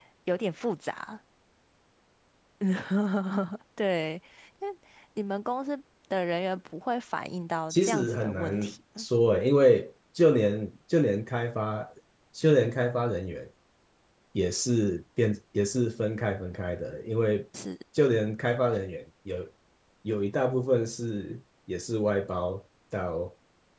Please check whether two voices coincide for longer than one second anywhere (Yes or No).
Yes